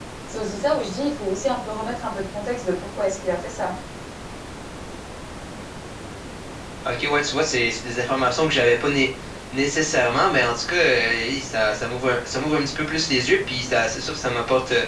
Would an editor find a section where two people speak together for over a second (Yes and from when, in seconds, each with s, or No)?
No